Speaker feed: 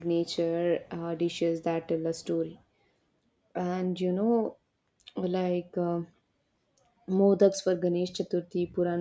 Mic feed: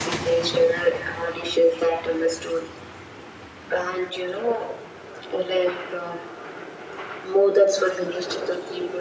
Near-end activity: none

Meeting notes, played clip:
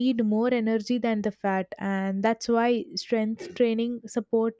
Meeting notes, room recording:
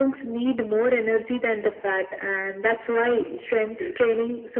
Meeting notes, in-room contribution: none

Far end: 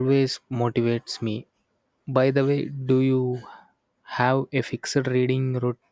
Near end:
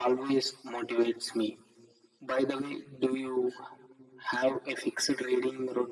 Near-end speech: none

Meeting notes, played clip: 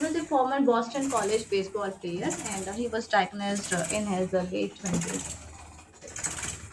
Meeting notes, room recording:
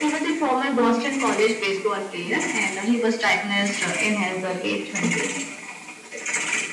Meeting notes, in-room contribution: none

